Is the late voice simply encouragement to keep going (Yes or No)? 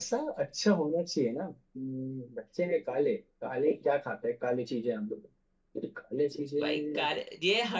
No